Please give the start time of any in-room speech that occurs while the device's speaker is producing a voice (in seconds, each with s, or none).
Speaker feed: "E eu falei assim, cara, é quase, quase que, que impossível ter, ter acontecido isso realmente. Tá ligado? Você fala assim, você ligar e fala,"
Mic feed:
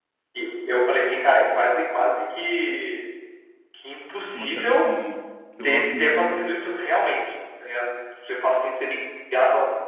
4.3 s